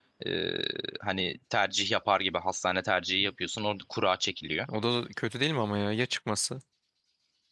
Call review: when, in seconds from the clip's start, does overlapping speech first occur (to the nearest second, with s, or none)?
none